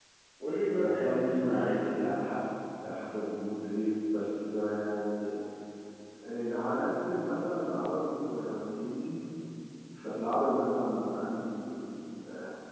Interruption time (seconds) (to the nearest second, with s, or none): 1 s